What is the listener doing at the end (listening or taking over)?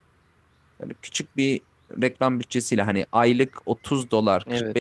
listening